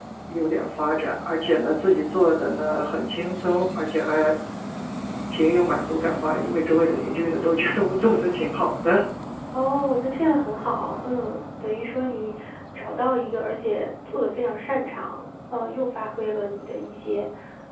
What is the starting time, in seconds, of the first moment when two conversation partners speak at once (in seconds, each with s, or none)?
none